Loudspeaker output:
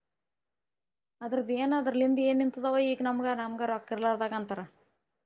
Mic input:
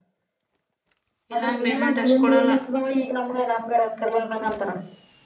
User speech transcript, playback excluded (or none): ಇಲ್ಲ ಪೇಮೆಂಟ್ ಅಷ್ ಕೊಡಲ್ಲ.